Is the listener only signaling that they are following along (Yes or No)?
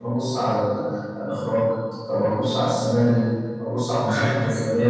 Yes